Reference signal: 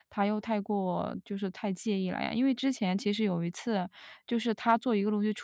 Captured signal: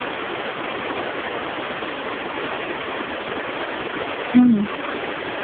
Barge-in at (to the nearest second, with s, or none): 4 s